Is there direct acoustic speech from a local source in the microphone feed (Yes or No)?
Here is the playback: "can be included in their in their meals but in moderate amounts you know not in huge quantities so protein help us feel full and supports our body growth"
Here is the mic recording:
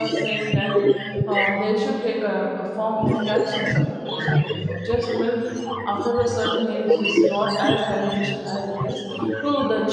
Yes